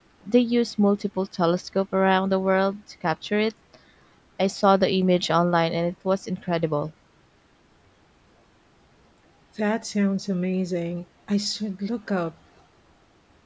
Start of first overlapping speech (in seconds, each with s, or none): none